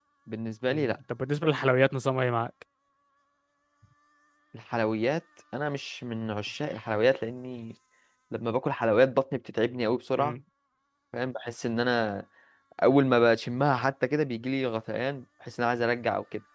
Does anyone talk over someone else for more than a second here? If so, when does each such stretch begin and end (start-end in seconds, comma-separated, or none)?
none